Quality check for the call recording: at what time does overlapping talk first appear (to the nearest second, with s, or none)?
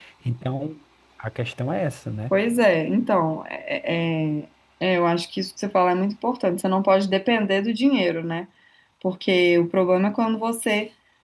none